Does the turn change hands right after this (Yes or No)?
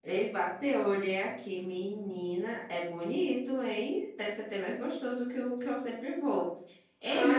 Yes